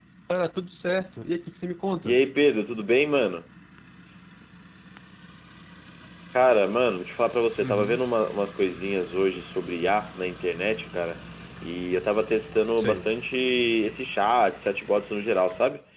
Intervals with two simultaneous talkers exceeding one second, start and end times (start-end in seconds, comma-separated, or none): none